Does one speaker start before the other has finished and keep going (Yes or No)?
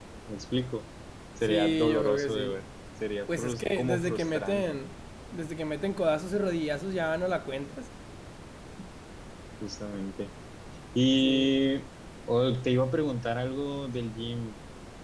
Yes